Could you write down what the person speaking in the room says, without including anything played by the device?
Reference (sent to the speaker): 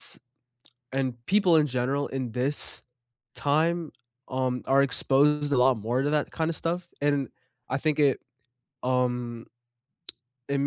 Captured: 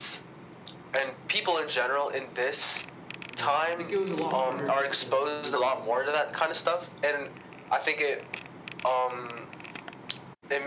Yeah, I think it was a lot harder for, you know, you guys

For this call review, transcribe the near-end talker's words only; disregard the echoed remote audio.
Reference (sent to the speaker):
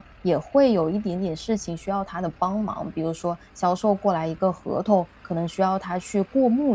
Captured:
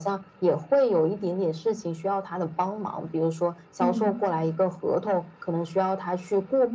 嗯。

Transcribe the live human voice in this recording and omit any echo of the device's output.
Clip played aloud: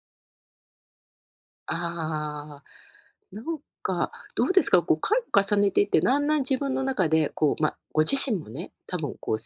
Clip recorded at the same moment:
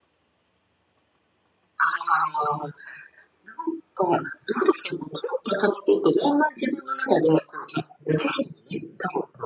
none

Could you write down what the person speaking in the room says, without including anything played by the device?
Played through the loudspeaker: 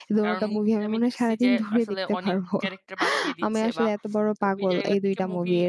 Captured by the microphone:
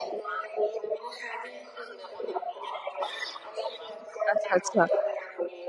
আচ্ছা, আচ্ছা।

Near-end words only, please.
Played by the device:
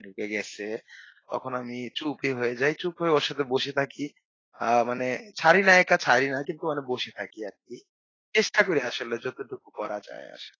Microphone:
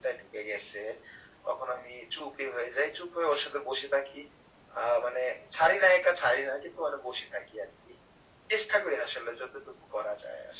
none

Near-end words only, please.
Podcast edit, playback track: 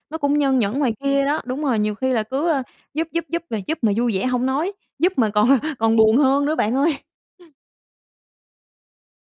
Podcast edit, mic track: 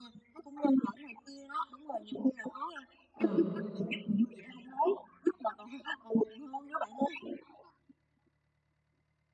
Ừ,

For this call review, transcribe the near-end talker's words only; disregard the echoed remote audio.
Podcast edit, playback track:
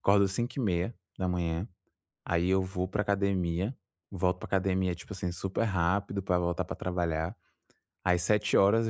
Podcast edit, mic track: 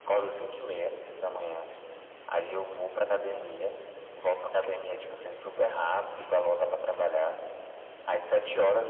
none

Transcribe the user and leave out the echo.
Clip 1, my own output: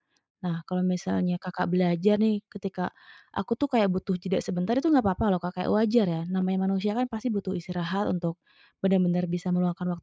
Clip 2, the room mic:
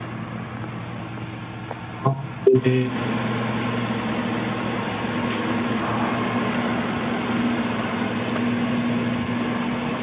Oke,

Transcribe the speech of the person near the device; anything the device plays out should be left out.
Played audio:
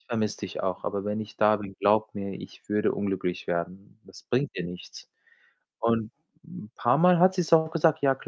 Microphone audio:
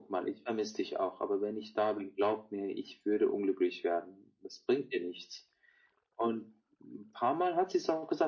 none

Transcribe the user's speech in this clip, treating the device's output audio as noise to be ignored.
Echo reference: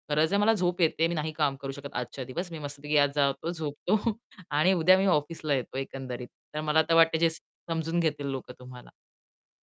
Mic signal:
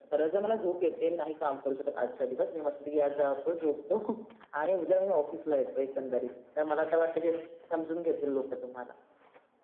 none

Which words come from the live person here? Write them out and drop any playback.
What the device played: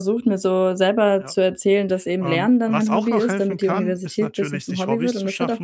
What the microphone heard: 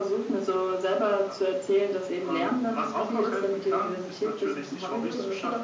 none

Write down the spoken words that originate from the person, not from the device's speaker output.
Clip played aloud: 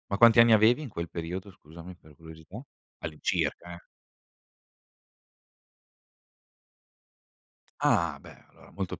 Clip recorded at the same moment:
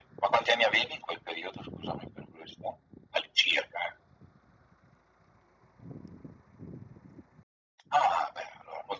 none

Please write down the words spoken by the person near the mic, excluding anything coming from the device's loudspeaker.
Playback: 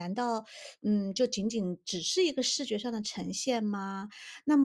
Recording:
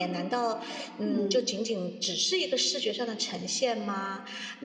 嗯。

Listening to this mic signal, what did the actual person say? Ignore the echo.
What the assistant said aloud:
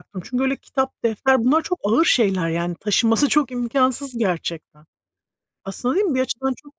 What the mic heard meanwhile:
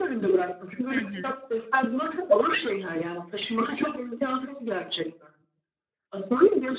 Hı hı.

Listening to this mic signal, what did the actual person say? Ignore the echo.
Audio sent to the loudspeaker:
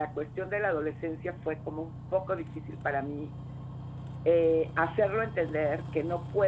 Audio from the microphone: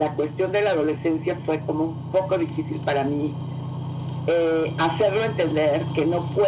none

